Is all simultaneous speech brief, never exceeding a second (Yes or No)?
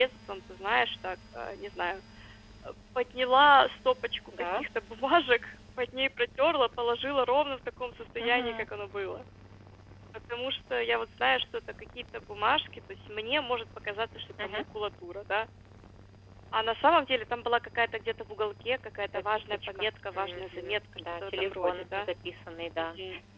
No